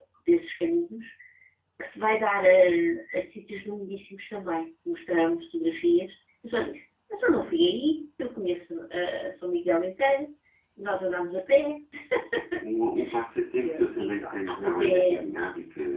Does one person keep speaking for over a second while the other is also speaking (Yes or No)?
Yes